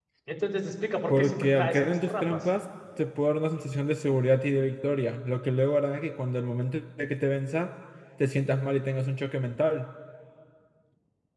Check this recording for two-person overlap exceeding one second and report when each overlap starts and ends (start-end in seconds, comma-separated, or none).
1.1-2.4